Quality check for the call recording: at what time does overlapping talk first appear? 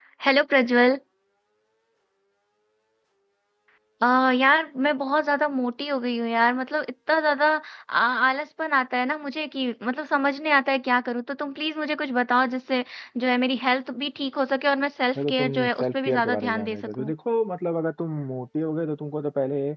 15.2 s

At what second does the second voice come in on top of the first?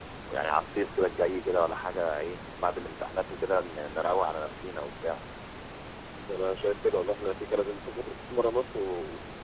none

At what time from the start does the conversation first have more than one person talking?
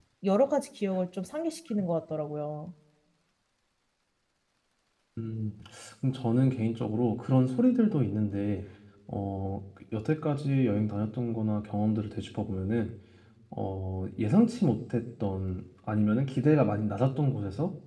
none

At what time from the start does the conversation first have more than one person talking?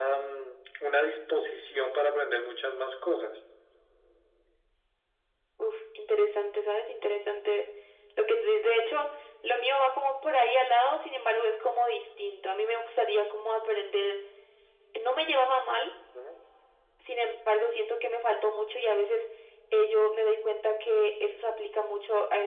none

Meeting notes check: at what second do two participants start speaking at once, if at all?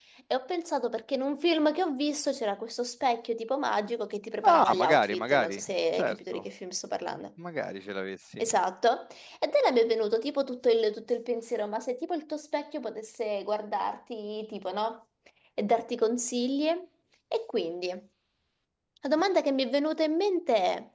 4.4 s

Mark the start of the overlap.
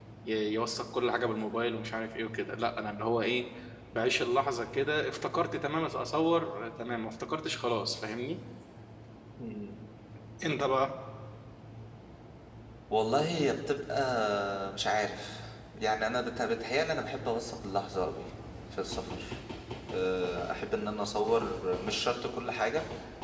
none

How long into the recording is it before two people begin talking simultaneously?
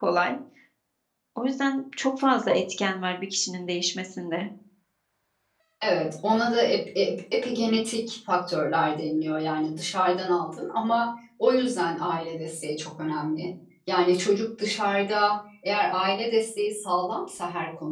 none

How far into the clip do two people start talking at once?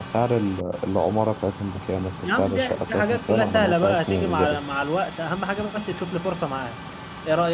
2.2 s

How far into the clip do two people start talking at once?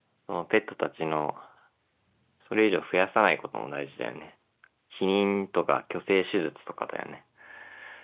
none

